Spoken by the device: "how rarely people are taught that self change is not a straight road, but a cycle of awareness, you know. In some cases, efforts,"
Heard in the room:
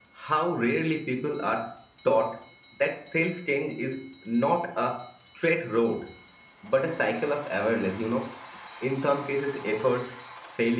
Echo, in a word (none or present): present